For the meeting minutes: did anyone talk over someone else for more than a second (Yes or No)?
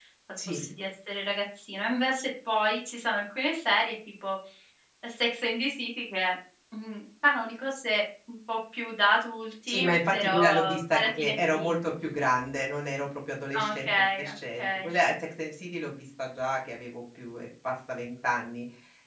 Yes